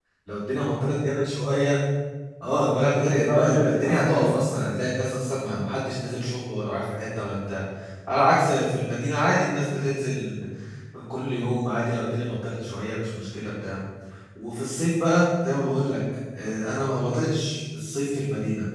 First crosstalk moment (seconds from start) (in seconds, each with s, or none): 3.2 s